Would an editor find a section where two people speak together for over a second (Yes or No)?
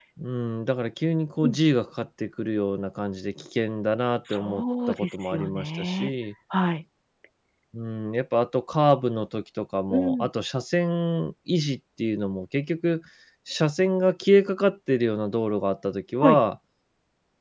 Yes